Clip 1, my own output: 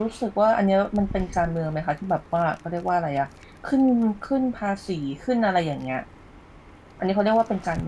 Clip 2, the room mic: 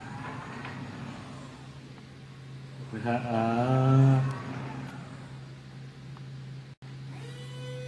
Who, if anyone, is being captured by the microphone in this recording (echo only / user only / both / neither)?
user only